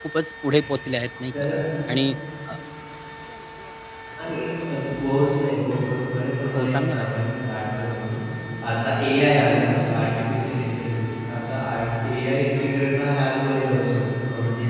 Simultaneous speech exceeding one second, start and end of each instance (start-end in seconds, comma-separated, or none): none